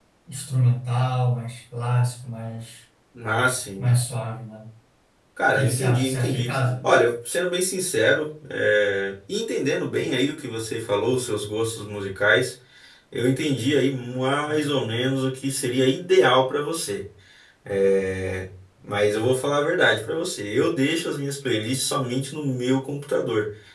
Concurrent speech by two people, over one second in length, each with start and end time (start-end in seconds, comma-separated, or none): 5.5-6.8